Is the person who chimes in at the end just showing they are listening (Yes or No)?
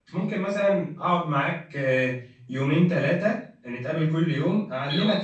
Yes